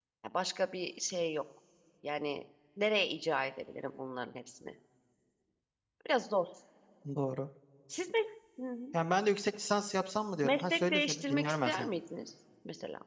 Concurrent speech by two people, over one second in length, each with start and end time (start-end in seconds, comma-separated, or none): 10.4-11.9